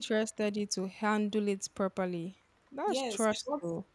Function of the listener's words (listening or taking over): taking over